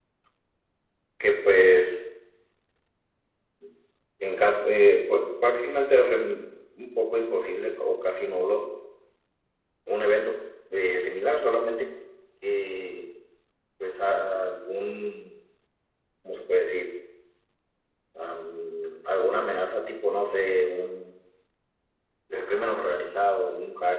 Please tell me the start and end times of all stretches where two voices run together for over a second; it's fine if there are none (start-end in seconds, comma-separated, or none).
none